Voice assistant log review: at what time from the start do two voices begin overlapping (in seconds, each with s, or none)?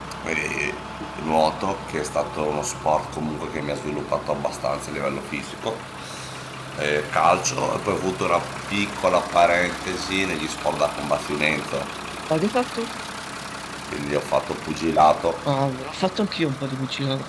none